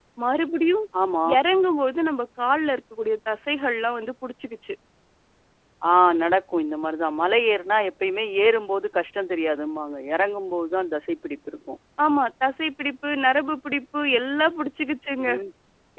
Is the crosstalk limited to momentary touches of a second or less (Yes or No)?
Yes